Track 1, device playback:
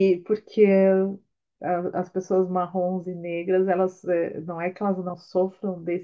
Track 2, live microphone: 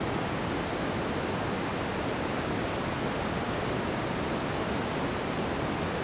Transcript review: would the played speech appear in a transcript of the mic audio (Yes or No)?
No